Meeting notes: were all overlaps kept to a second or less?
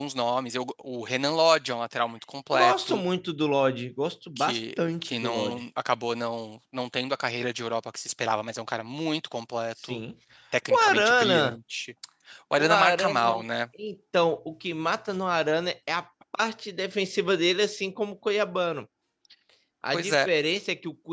No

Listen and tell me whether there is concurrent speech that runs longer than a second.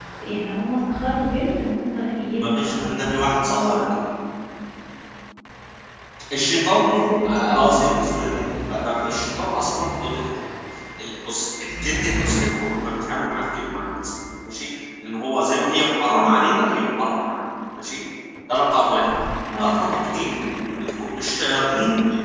Yes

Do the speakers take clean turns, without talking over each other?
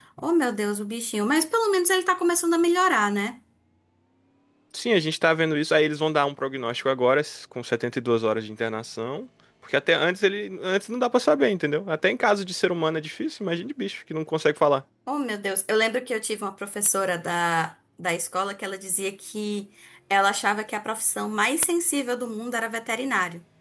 Yes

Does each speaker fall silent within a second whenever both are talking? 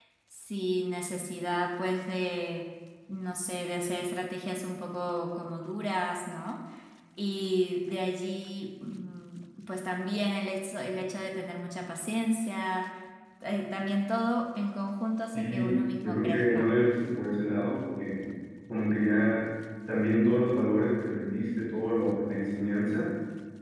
No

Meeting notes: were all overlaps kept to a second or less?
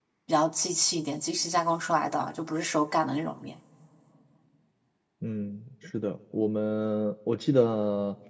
Yes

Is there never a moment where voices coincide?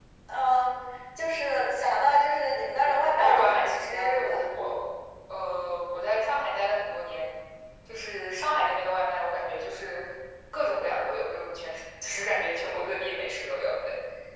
No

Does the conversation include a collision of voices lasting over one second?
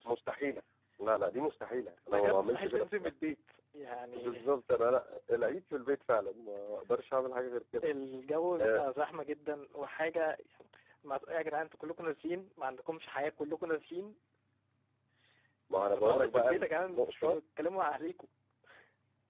Yes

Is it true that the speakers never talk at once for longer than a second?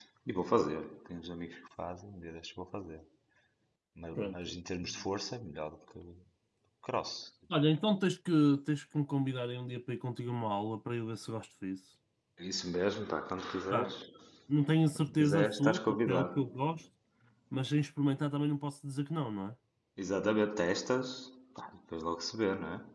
No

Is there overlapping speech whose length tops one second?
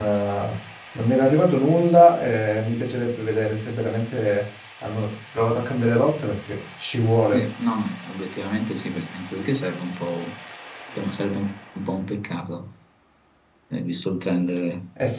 No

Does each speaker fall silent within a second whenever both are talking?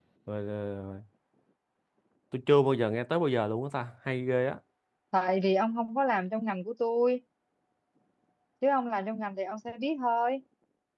Yes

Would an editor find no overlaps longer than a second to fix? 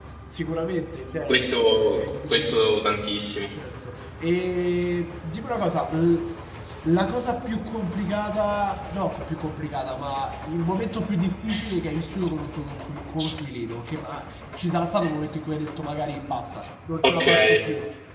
No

